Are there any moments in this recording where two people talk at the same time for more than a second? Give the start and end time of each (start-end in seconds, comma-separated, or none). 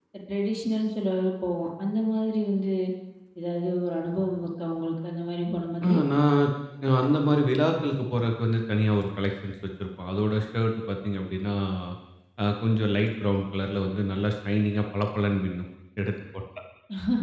none